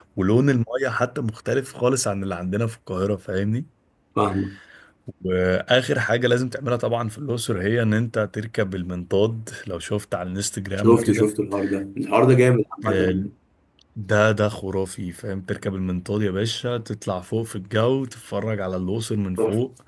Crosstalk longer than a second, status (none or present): none